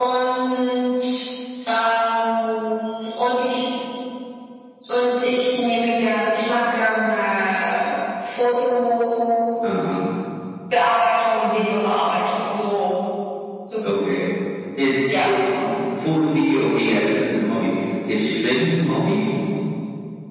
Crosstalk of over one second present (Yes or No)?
No